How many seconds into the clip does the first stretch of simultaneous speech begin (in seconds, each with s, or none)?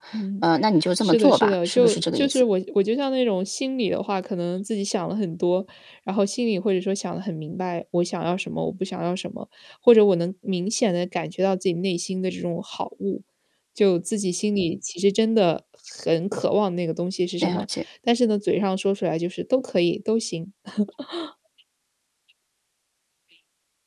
1.0 s